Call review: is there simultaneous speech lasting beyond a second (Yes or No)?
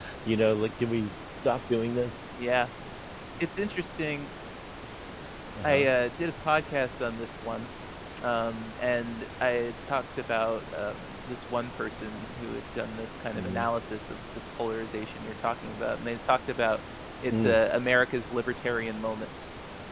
No